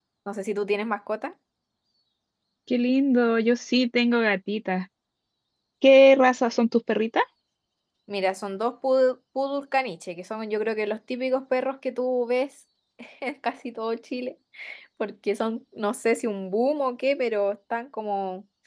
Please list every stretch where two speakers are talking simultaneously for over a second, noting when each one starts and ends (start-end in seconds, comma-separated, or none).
none